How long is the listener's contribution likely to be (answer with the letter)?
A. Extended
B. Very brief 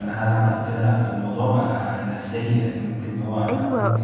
A